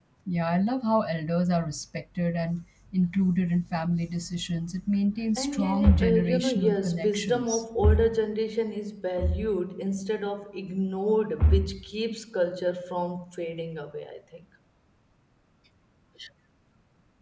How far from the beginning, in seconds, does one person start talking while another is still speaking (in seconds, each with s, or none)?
5.4 s